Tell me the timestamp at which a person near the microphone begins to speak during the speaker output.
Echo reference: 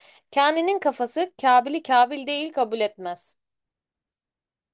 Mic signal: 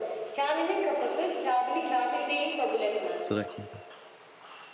3.2 s

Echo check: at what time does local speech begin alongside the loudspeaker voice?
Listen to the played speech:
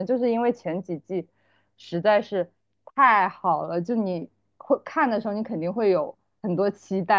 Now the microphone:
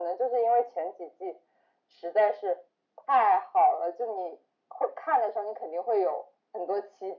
none

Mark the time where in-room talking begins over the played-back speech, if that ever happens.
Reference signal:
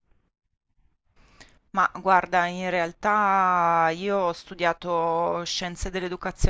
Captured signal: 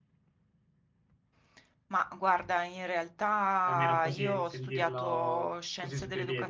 3.6 s

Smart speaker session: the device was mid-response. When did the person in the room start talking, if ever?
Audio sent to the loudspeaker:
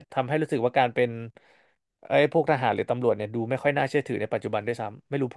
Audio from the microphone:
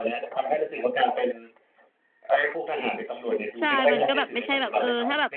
3.6 s

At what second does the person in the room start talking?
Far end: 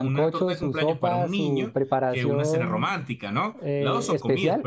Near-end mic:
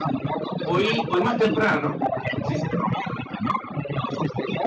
0.6 s

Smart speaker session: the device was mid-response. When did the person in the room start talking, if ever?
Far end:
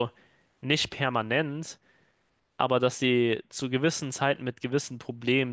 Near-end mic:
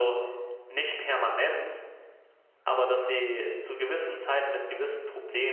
none

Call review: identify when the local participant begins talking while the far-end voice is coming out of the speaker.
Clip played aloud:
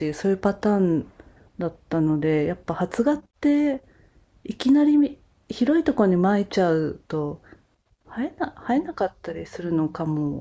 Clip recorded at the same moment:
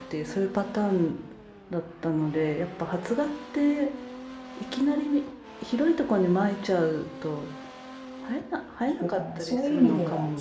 8.8 s

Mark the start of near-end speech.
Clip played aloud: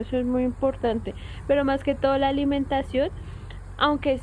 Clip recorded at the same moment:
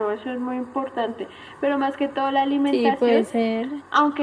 2.6 s

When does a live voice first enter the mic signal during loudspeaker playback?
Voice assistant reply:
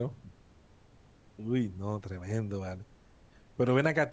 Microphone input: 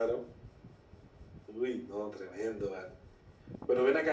none

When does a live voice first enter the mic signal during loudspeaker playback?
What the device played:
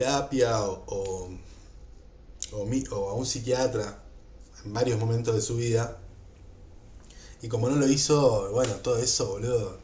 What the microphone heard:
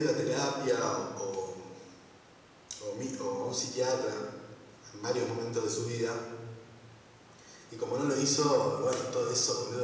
none

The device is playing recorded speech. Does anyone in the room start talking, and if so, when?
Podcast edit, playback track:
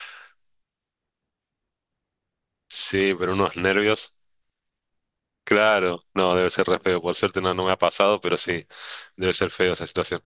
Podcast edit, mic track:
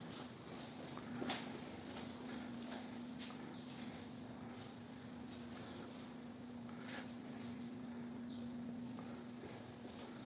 none

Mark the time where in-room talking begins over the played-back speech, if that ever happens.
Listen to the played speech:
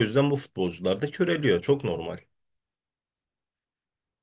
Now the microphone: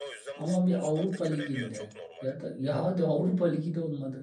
0.3 s

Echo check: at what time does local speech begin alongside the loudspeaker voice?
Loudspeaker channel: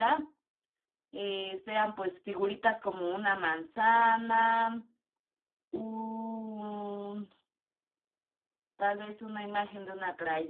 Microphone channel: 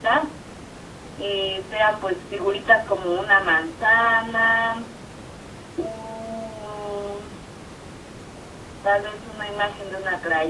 none

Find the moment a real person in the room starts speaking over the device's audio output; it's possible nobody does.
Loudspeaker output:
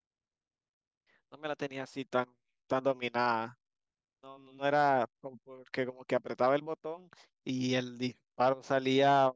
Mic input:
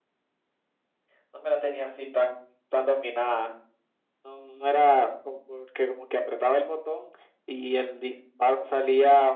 none

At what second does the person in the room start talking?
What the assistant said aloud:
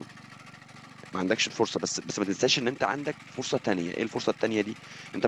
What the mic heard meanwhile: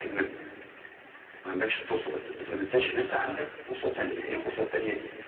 2.7 s

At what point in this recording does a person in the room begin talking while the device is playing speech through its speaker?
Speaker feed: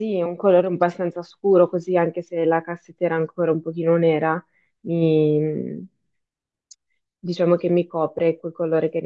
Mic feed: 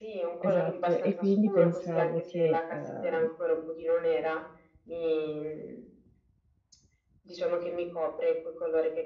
0.4 s

